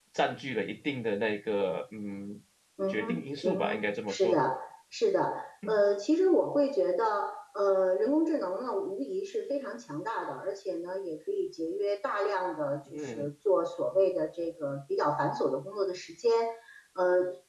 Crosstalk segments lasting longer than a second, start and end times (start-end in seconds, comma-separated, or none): 2.9-4.4